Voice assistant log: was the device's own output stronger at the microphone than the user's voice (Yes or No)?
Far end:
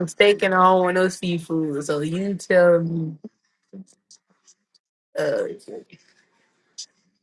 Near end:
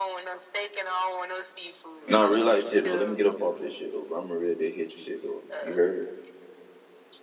No